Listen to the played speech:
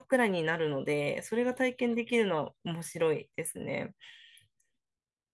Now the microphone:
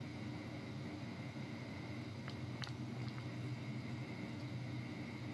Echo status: none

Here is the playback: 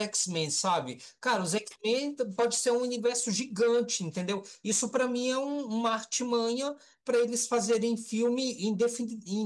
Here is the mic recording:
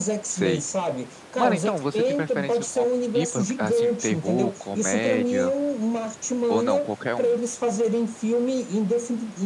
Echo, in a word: present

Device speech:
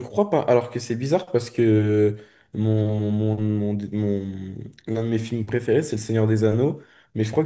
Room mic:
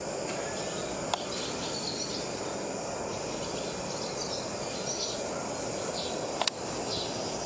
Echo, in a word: none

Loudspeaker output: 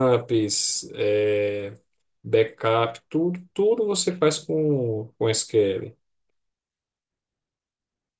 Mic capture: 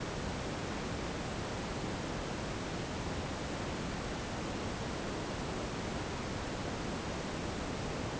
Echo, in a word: none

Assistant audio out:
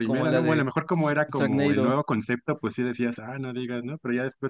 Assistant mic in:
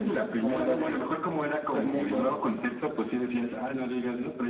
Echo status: present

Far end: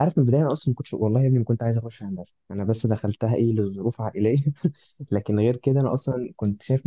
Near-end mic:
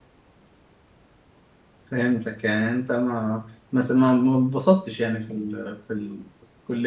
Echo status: none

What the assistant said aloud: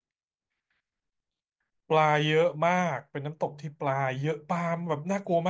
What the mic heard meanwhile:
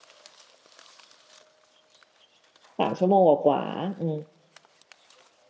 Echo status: none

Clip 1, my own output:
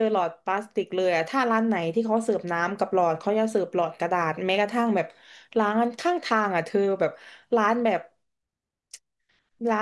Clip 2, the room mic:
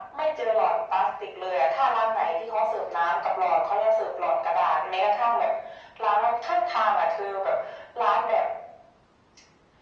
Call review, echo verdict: present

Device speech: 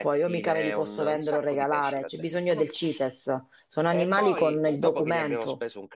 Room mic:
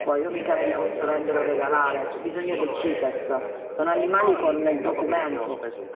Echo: present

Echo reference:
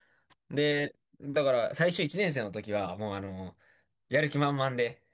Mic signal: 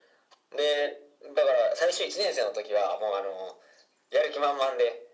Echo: present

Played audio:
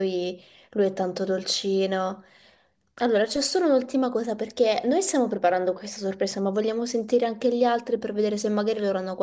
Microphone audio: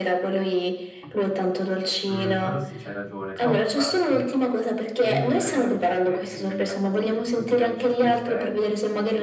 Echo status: present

